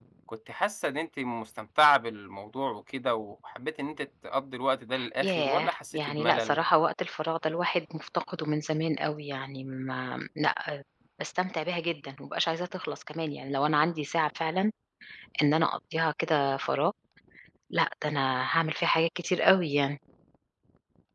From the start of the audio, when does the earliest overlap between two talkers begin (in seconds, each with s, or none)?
5.2 s